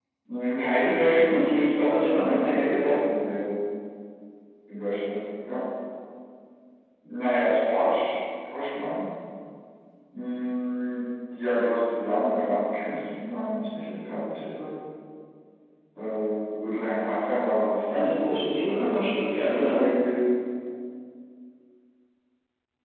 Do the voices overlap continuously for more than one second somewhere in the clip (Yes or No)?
Yes